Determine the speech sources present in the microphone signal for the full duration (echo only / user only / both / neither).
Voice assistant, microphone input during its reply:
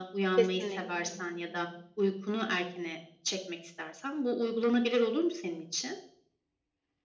both